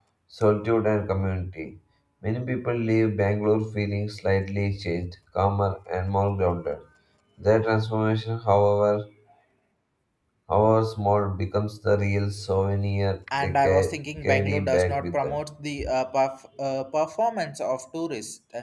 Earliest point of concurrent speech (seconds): 13.3 s

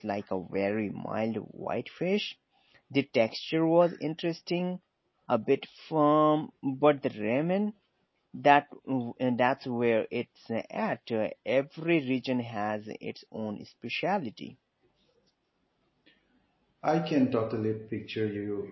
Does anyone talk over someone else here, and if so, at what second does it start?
none

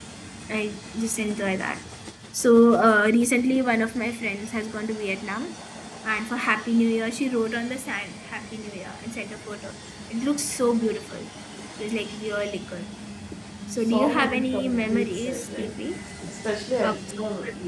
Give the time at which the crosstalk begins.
13.8 s

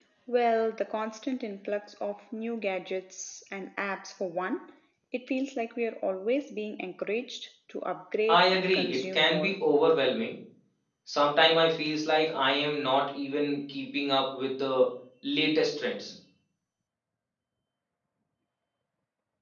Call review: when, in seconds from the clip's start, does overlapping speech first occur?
8.3 s

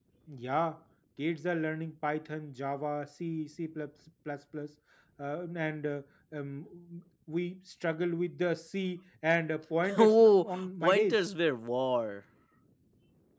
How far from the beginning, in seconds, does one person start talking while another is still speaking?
10.0 s

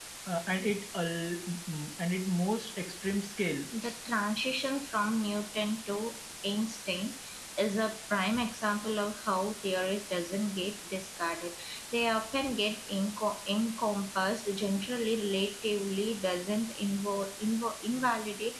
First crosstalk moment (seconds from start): none

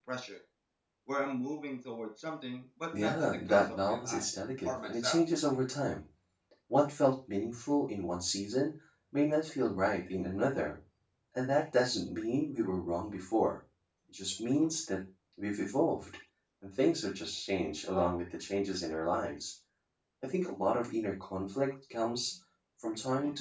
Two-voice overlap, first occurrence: 2.9 s

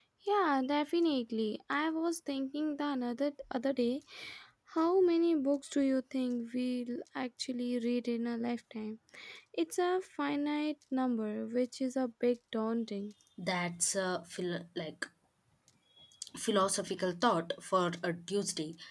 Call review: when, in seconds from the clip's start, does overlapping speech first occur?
none

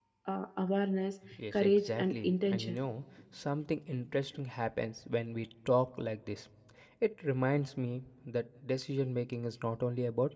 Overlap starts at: 1.3 s

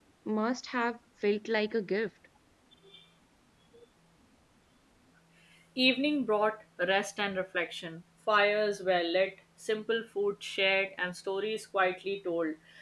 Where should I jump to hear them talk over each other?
none

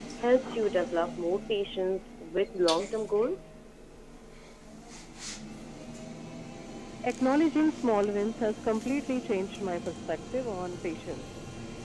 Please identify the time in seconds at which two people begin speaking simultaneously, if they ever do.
none

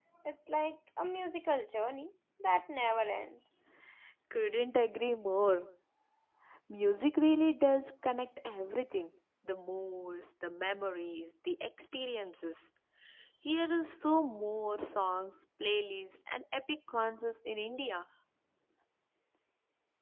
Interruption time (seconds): none

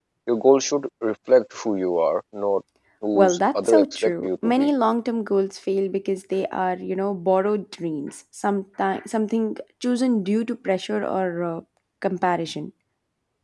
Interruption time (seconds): 3.2 s

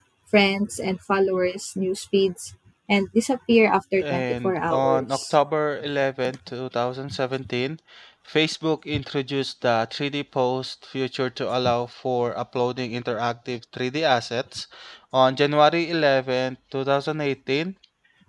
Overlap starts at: 3.9 s

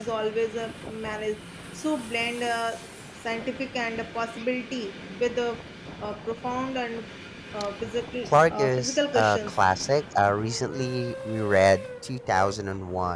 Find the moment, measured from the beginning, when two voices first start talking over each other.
8.2 s

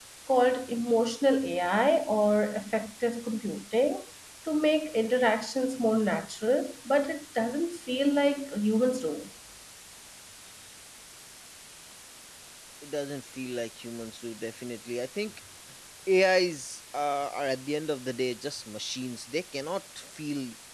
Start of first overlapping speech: none

